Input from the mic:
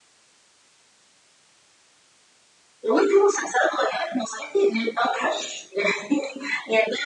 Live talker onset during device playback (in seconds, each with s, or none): none